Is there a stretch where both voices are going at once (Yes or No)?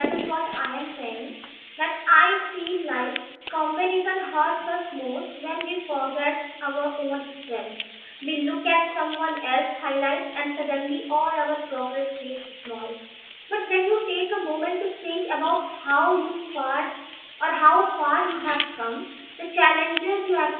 No